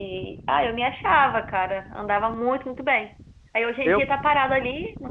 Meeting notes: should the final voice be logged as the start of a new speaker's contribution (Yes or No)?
No